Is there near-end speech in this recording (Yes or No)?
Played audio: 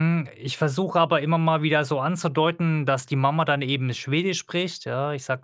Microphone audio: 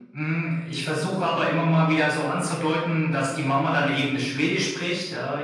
No